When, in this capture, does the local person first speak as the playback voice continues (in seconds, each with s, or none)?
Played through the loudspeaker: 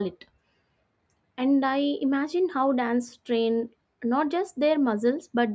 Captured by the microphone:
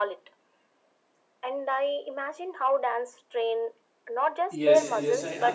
4.5 s